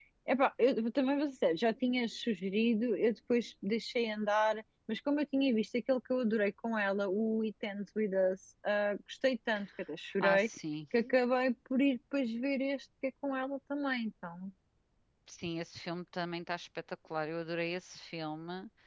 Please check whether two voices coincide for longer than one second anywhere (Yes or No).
No